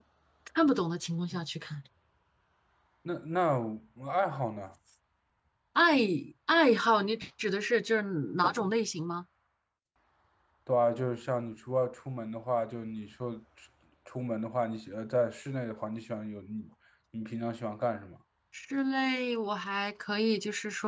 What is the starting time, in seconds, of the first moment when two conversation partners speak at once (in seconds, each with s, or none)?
none